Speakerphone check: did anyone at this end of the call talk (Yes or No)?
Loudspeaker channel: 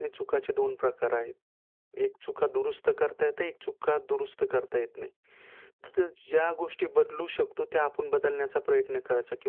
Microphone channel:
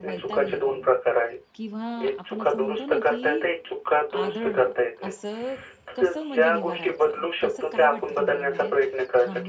Yes